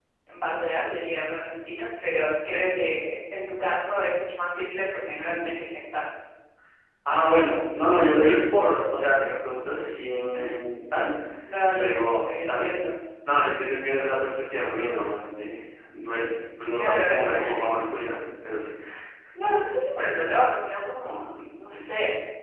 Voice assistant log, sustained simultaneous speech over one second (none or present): present